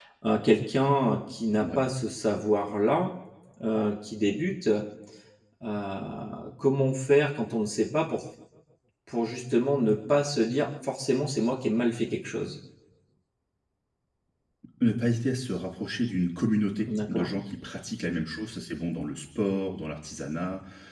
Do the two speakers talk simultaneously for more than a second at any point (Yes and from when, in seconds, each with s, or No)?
No